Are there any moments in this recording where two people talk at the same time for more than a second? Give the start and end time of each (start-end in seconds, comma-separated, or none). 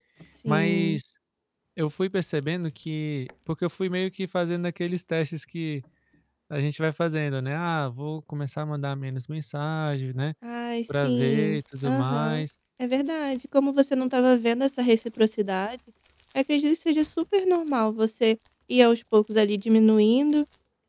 11.0-12.4